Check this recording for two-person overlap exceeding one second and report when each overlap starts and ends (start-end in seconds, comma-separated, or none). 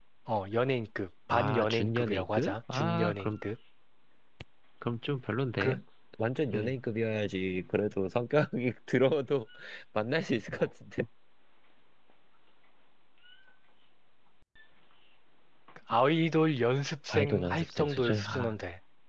1.3-3.3, 17.1-18.5